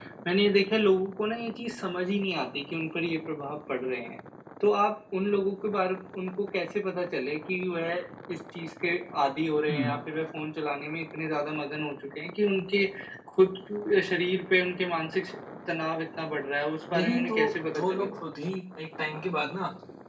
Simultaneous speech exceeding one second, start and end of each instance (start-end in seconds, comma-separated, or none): 16.9-18.2